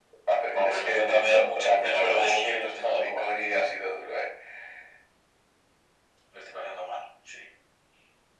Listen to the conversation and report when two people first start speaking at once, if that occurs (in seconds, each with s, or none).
0.5 s